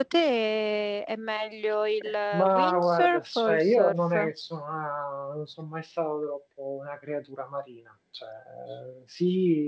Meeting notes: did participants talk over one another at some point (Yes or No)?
Yes